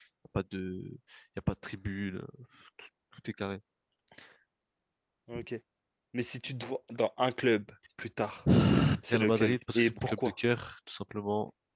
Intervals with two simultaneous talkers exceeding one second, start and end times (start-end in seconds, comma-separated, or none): 9.1-10.3